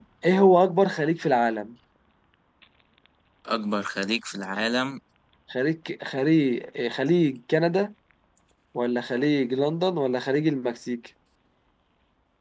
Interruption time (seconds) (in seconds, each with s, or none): none